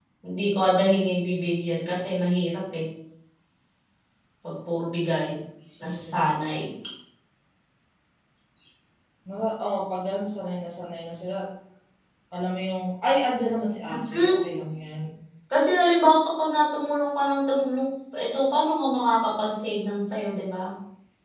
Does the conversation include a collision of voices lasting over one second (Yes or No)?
No